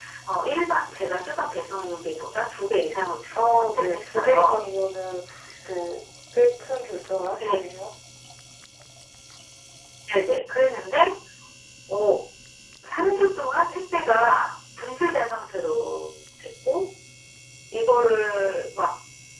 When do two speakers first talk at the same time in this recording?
3.3 s

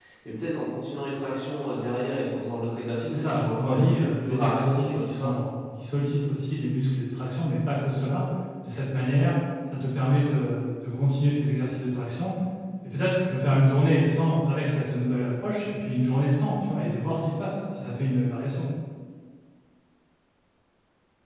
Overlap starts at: 3.1 s

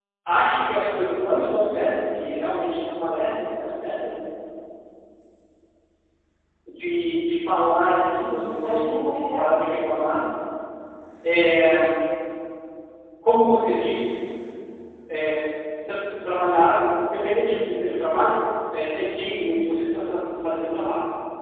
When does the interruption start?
8.2 s

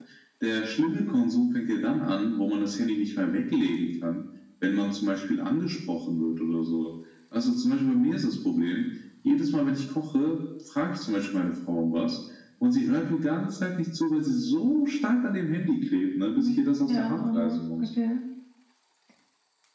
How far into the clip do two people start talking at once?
16.3 s

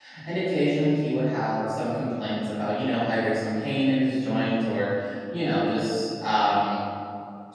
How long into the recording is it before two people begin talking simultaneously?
none

